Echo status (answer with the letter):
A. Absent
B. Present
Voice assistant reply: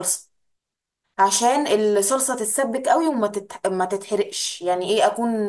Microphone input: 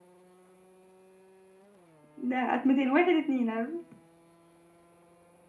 A